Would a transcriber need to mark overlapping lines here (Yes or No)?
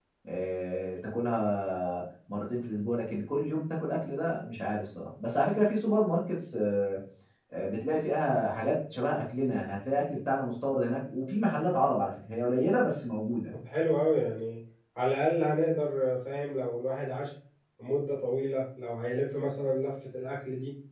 No